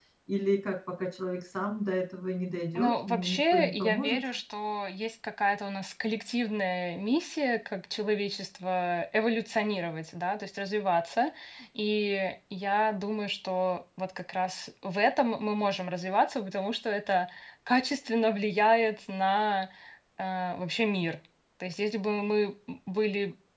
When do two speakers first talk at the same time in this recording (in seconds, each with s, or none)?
2.8 s